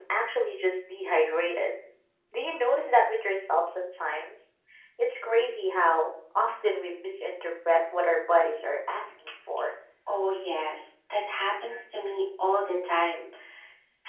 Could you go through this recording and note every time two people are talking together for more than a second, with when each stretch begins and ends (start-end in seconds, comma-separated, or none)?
none